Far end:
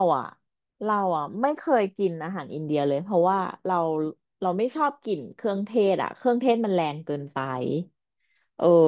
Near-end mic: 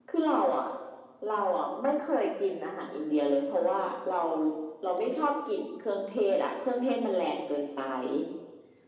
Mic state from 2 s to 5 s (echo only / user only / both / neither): echo only